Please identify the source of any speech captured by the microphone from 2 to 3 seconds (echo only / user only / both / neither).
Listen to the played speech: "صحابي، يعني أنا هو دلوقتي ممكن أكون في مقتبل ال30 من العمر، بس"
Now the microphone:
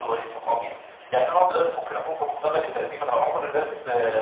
echo only